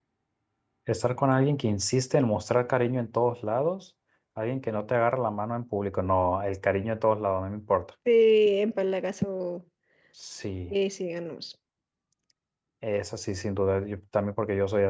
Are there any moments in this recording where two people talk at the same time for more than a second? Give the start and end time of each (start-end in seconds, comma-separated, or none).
none